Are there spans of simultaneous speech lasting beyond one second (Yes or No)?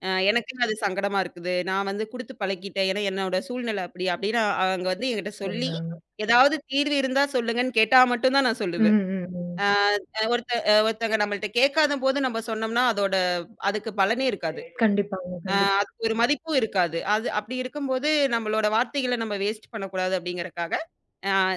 No